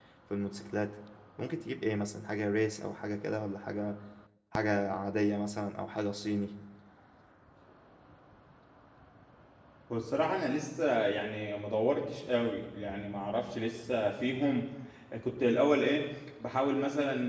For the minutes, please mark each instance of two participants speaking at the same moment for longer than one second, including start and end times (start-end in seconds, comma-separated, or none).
none